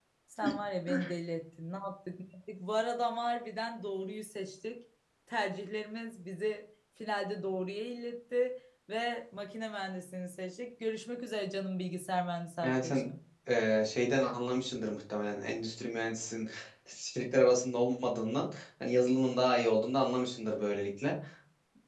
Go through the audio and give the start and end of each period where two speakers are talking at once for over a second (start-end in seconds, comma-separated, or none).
none